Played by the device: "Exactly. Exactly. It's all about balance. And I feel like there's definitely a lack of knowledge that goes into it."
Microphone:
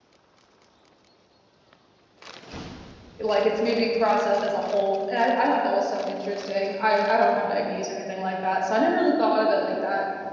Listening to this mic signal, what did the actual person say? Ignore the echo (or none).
Like it's made to be processed as a whole. And I, I thought that was so interesting. I, I don't have diabetes or anything like that. So I never really thought of it like that.